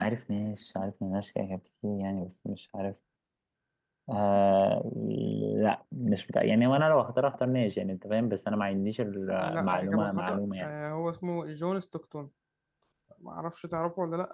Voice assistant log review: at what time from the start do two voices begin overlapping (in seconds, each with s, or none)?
9.4 s